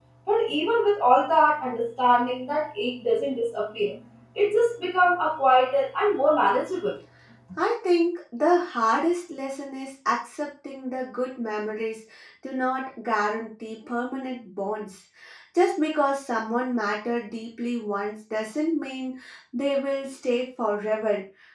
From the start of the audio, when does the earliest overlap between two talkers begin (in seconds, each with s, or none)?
none